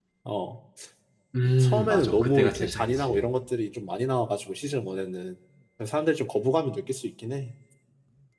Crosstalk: present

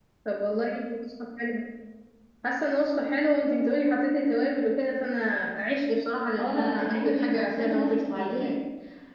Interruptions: present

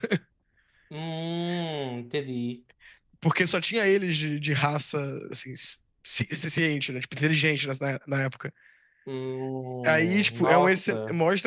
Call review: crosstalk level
present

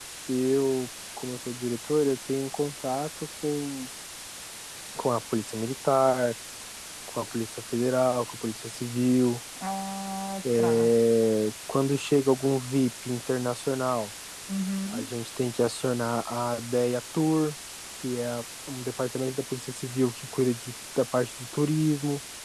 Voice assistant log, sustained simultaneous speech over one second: none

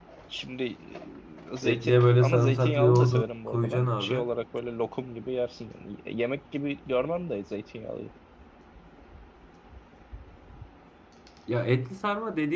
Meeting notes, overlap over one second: present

